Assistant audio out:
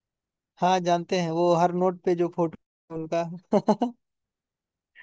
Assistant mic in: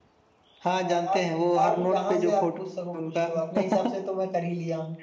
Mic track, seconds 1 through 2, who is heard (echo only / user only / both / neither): both